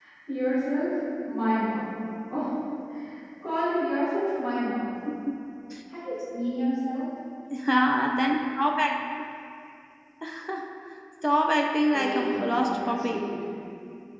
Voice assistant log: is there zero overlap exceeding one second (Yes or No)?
No